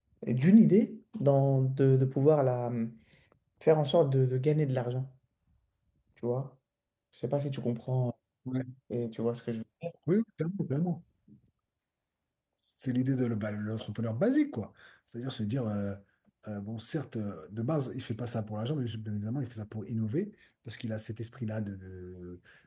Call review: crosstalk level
none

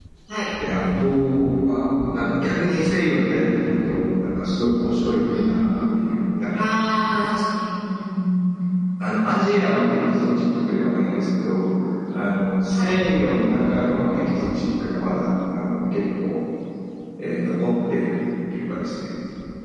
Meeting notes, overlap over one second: none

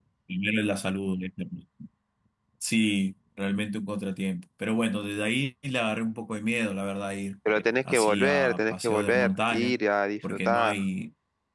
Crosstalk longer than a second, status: present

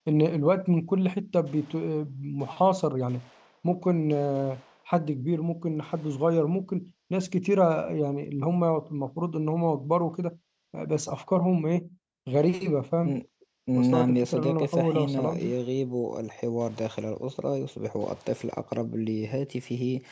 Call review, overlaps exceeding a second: present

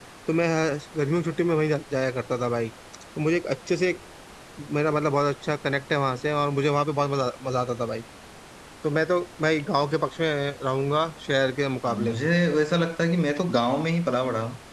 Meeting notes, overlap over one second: none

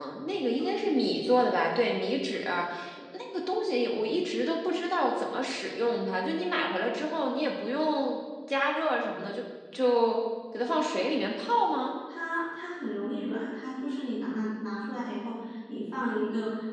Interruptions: none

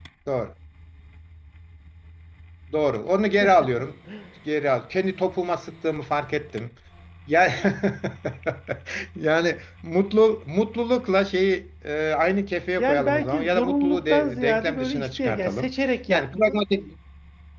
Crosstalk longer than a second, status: present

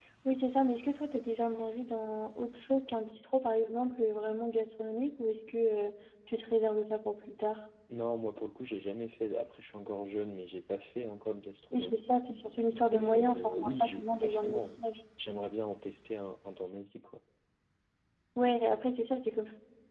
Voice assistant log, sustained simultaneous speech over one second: present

